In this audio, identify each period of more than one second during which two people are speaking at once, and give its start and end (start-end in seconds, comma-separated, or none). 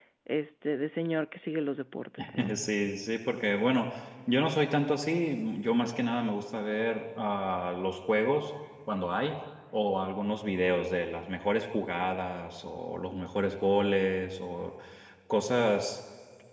none